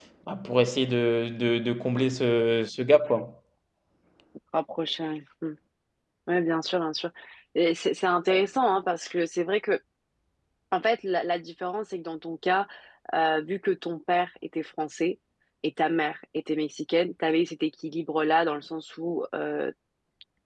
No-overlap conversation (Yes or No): Yes